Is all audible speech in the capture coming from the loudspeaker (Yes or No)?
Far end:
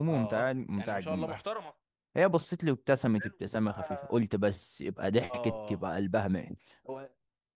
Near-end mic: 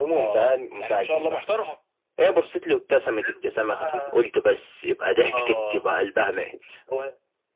Yes